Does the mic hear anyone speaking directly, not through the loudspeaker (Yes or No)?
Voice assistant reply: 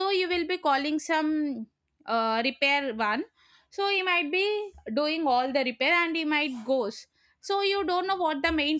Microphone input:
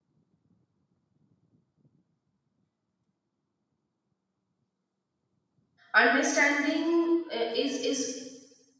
Yes